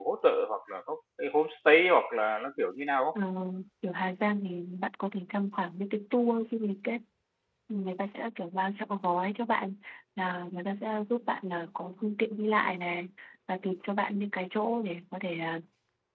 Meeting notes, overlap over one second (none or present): none